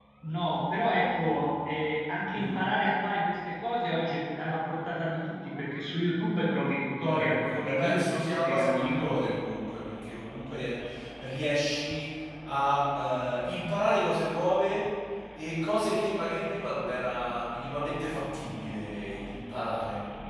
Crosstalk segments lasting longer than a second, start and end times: 7.0-9.3

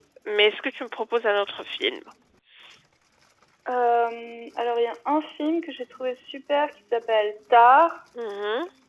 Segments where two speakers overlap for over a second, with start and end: none

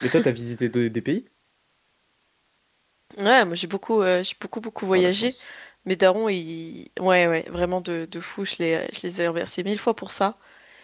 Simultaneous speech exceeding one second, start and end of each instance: none

